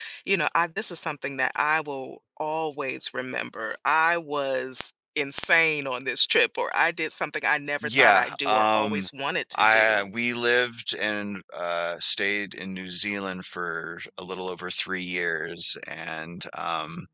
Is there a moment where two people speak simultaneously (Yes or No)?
Yes